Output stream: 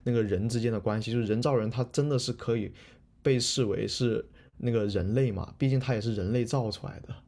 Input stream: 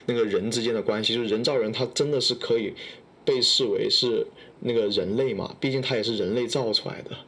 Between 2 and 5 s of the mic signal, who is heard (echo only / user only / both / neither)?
echo only